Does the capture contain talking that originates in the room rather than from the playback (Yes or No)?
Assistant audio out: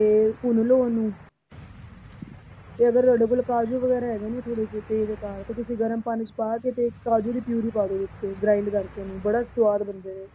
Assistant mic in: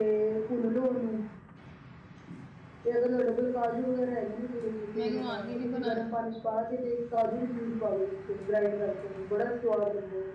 Yes